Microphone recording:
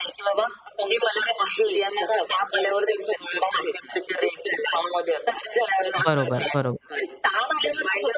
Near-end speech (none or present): present